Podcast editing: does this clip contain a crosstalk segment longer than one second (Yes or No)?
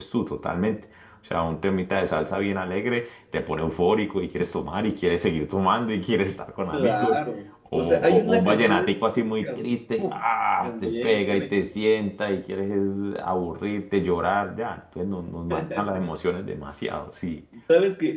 Yes